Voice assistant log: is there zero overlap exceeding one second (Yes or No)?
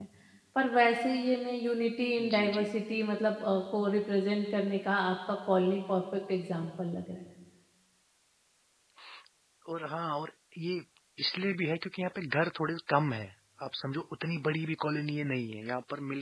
Yes